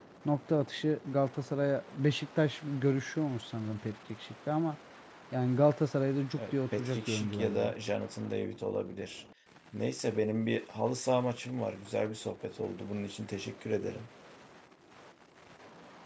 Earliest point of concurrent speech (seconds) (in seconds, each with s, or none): 6.4 s